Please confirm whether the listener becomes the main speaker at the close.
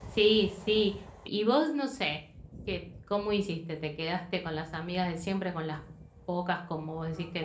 No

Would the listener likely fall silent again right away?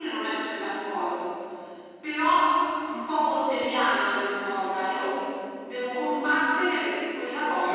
Yes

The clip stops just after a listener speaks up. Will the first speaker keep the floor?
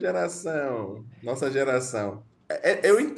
Yes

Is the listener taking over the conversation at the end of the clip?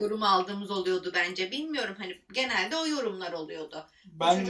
No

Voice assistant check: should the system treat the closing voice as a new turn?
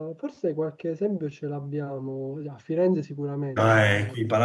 Yes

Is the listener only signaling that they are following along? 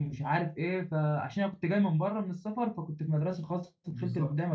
No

